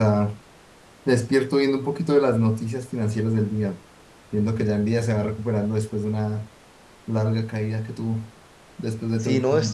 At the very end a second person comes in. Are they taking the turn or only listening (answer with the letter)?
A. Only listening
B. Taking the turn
B